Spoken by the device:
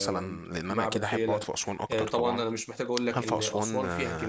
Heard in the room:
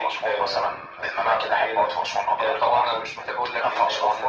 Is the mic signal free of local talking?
Yes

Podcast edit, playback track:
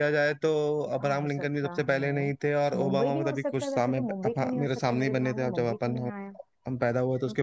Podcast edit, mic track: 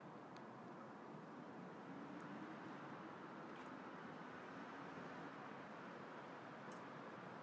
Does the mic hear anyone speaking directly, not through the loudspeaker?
No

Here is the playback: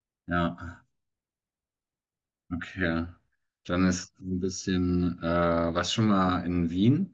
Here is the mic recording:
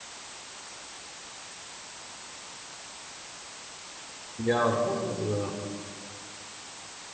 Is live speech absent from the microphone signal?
No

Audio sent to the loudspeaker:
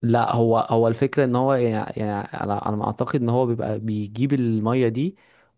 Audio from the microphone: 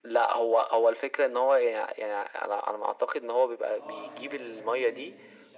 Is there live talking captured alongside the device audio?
Yes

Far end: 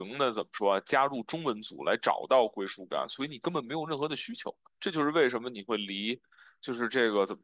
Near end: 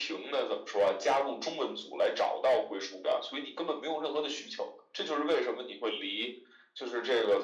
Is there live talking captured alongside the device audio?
No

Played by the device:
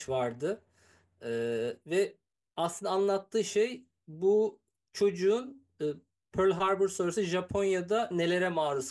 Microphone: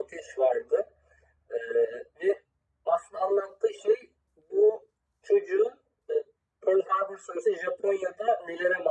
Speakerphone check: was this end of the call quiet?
Yes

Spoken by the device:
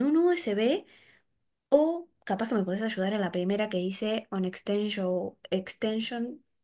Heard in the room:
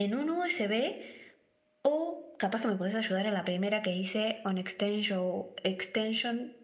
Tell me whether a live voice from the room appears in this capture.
No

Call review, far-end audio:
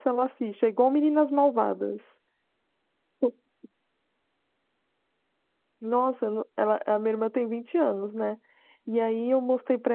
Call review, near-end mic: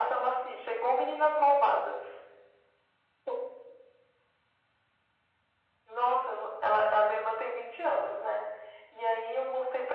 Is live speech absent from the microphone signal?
Yes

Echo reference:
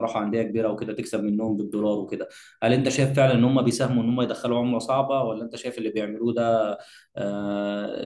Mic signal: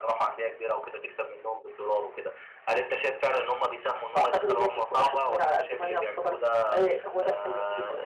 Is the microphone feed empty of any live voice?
No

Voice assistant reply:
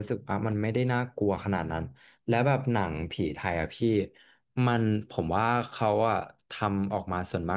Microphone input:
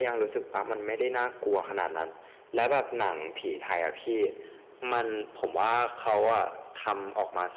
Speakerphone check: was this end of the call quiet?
Yes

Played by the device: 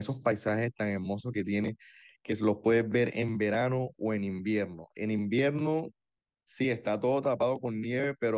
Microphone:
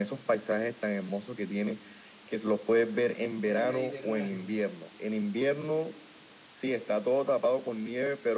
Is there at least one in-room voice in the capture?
Yes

